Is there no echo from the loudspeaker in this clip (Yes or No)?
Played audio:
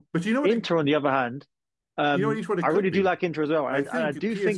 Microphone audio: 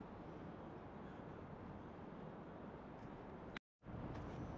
Yes